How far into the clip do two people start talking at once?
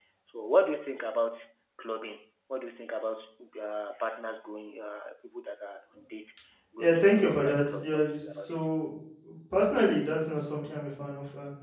6.8 s

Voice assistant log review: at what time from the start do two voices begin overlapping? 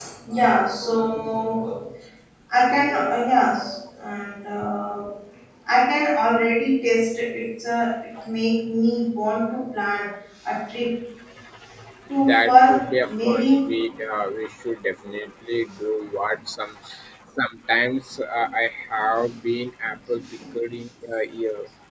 12.3 s

